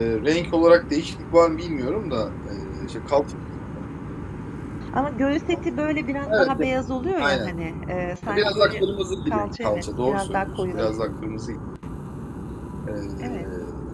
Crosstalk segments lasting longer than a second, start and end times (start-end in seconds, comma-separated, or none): 9.2-11.1